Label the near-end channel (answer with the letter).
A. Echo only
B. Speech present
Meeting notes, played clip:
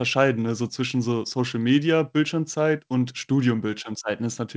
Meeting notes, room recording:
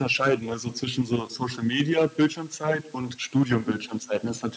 B